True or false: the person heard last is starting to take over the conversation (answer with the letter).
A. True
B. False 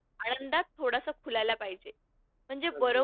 B